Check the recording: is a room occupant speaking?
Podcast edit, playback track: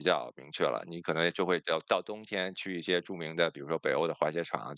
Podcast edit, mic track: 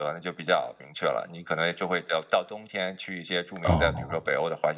Yes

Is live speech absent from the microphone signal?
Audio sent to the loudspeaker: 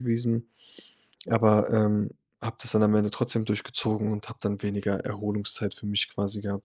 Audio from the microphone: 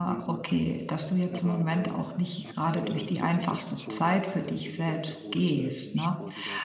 No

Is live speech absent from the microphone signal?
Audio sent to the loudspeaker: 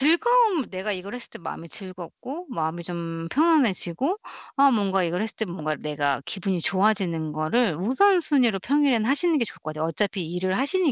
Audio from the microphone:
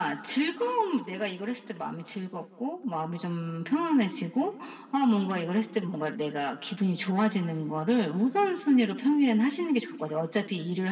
Yes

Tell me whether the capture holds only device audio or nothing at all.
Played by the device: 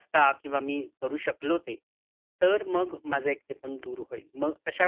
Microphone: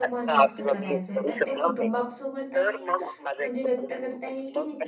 No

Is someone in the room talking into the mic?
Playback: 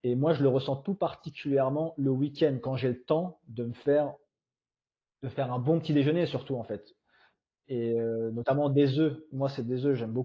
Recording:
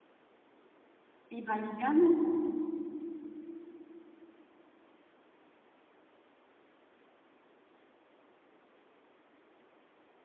Yes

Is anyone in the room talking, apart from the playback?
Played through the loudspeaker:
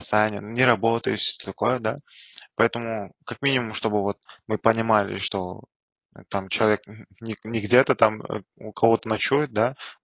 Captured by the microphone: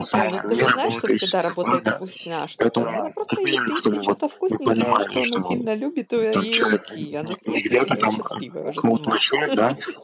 Yes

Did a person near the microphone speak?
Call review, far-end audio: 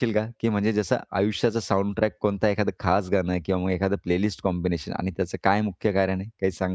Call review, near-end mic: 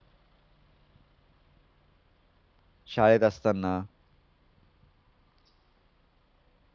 Yes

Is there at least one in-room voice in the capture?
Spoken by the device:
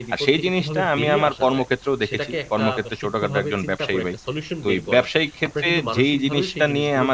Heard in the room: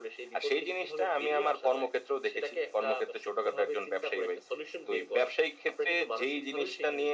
No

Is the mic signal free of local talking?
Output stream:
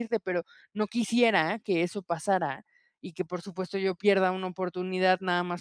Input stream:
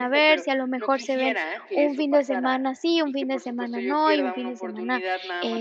No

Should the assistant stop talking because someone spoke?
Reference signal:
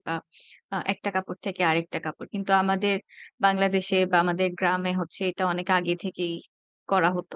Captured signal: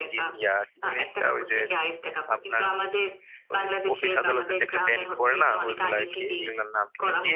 Yes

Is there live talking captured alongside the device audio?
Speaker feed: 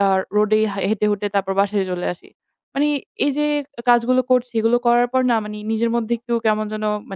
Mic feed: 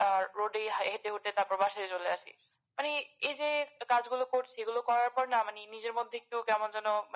No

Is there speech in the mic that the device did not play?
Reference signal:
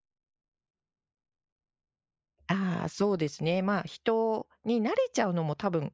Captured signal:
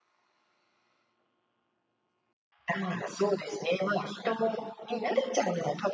No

